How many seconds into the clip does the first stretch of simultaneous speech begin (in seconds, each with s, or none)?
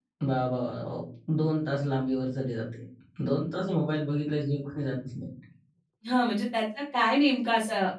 none